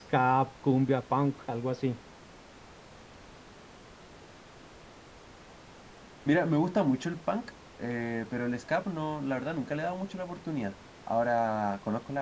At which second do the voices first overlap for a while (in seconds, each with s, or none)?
none